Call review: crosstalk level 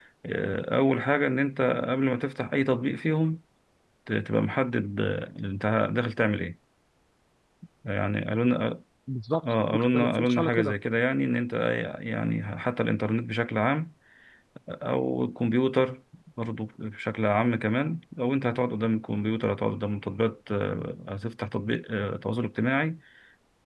present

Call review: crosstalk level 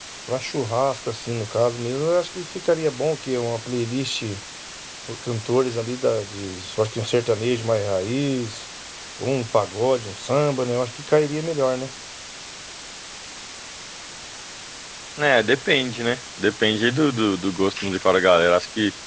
none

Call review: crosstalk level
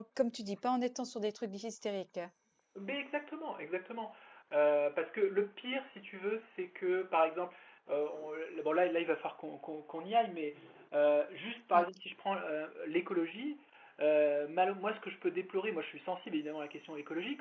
none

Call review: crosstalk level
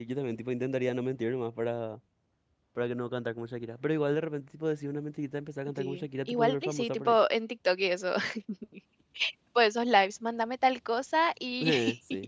present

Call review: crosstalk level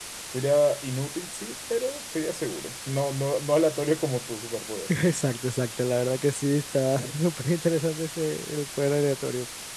none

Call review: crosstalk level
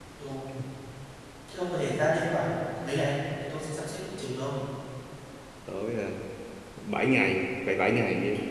none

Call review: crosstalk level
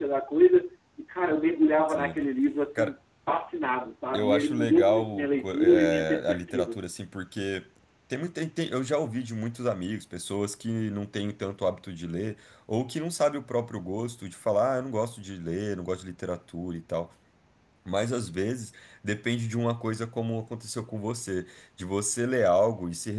present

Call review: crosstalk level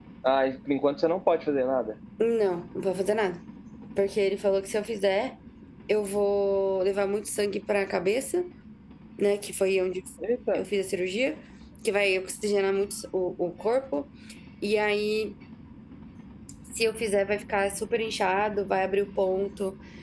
none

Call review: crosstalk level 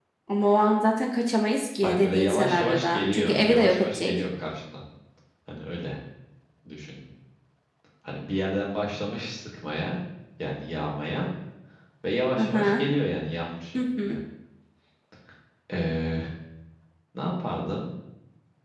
present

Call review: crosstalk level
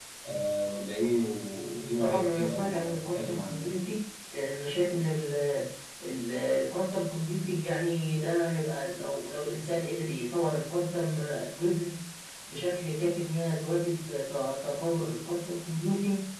present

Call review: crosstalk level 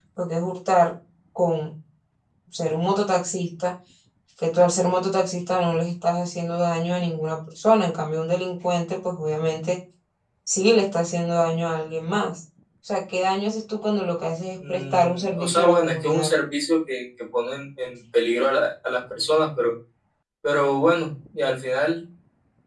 present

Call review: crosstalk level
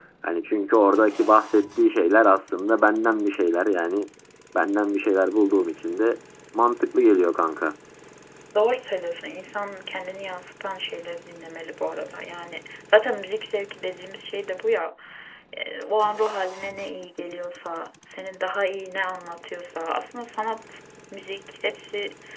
none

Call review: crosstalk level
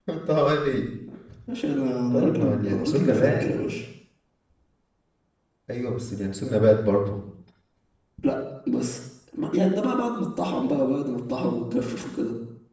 present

